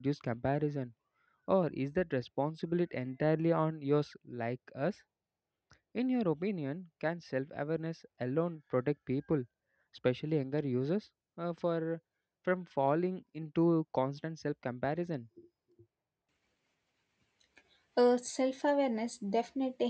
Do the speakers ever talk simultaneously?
No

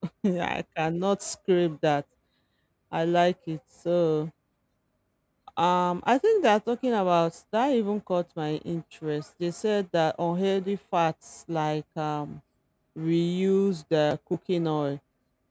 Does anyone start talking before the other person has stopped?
No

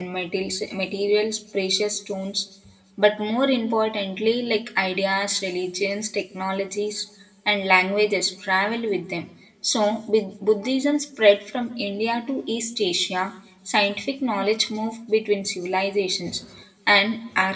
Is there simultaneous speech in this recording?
No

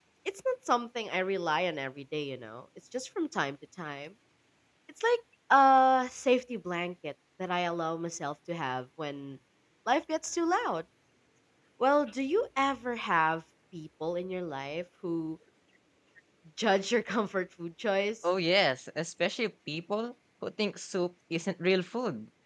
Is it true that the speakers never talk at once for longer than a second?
Yes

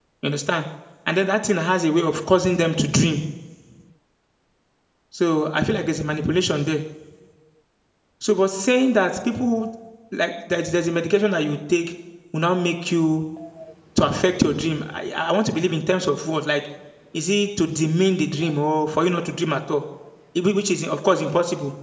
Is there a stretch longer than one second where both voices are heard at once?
No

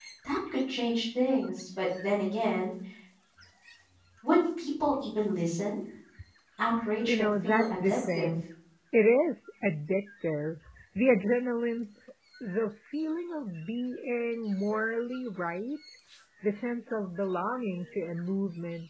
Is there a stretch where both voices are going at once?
Yes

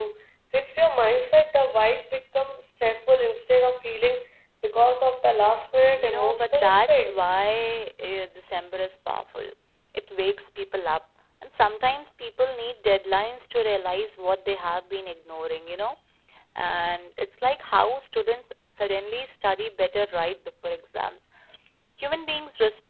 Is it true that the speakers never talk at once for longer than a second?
No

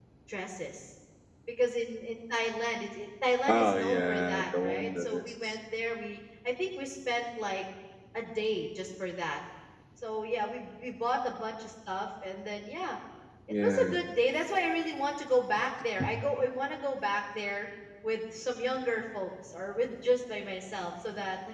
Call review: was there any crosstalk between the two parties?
Yes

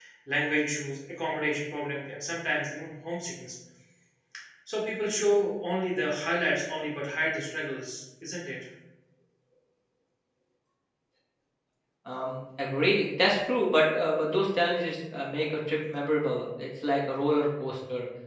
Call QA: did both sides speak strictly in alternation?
Yes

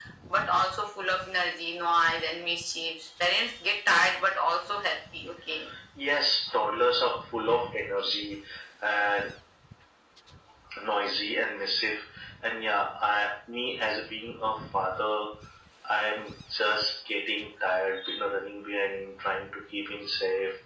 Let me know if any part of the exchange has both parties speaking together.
No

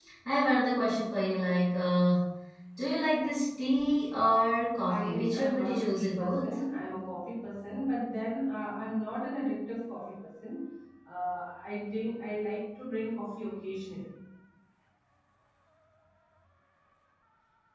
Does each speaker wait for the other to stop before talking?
No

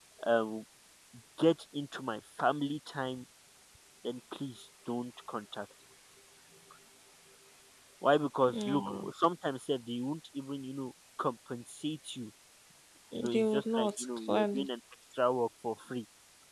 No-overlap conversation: No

